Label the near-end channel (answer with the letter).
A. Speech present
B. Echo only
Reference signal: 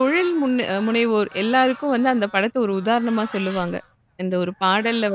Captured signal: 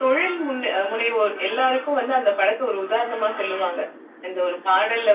B